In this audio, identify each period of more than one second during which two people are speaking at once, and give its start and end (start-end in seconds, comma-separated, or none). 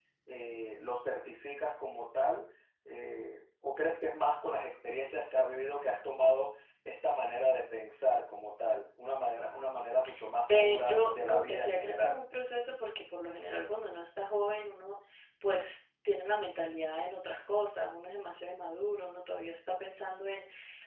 10.5-12.1